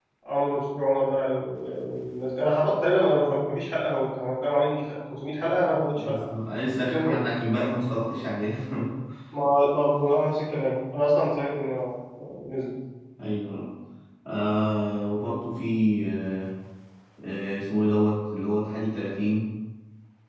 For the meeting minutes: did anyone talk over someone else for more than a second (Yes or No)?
No